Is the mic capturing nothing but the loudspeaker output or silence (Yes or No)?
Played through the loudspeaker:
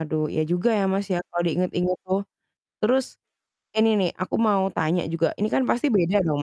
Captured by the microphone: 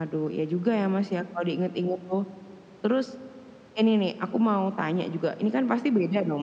Yes